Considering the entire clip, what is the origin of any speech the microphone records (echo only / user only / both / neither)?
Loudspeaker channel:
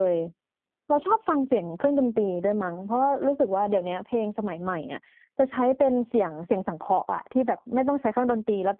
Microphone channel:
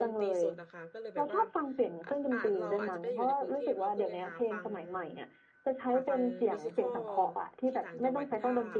both